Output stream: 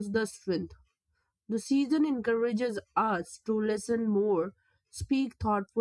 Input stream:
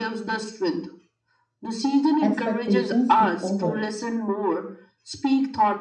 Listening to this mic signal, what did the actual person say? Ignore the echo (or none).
expectations took over.